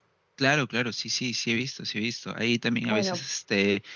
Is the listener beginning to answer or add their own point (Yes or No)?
No